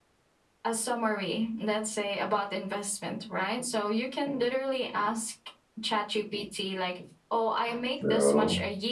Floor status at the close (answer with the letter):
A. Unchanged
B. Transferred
A